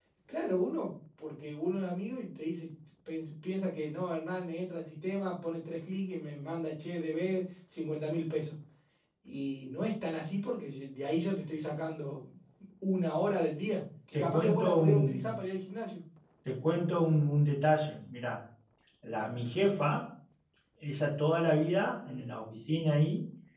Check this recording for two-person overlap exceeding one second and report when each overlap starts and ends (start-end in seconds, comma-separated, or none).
14.1-15.4